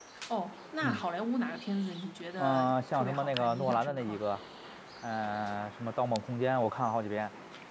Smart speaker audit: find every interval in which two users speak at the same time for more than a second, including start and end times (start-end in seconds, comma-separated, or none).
2.4-4.2